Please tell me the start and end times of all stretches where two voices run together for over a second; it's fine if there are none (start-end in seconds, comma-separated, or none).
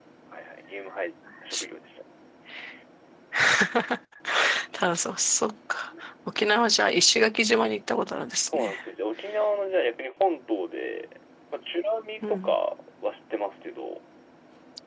none